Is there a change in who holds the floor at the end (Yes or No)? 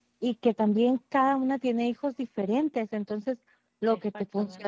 No